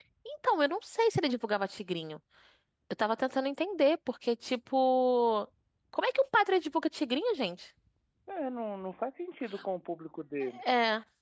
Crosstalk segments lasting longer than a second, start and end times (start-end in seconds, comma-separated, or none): none